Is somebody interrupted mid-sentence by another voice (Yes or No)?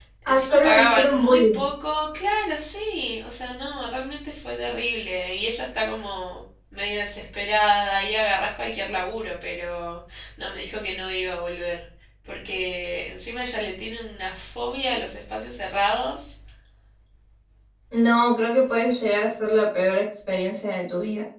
Yes